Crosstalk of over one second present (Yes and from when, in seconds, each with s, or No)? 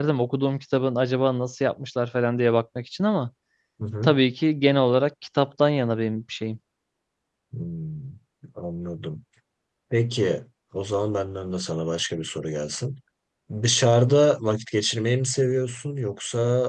No